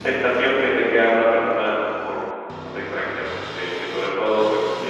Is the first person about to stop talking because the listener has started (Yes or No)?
No